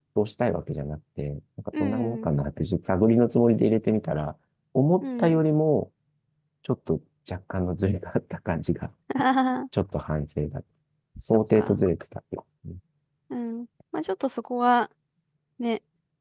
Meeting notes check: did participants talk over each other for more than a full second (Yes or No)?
No